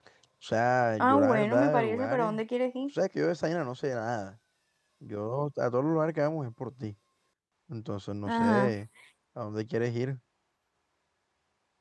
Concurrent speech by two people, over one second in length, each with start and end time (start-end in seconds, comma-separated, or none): 1.0-2.4